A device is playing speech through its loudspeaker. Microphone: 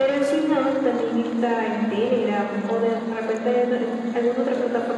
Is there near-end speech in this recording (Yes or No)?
No